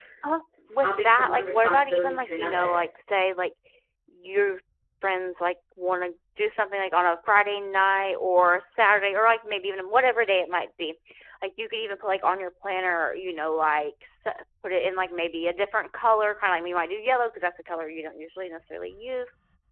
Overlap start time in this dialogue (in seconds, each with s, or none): 0.8 s